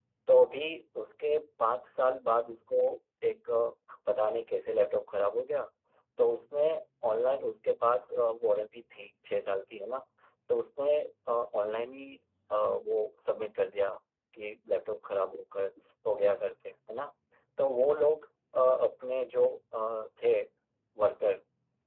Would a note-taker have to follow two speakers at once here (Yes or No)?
No